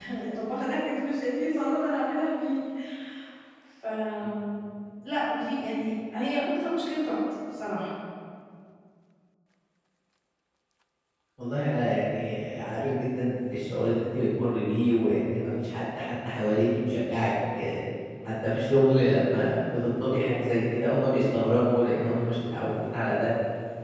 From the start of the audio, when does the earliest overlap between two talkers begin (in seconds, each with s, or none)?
none